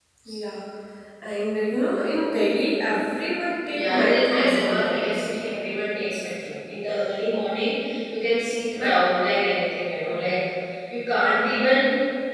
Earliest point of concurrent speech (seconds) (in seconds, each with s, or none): 3.7 s